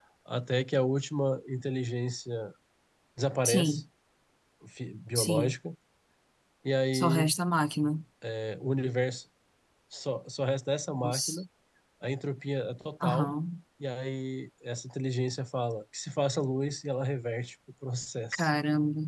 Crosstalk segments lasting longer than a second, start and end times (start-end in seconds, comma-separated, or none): none